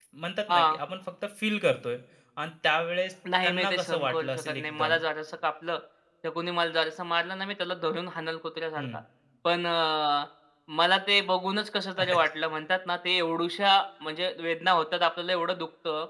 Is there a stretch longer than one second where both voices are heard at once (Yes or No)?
Yes